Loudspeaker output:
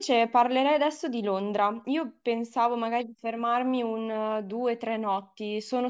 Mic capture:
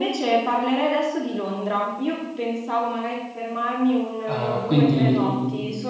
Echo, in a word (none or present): present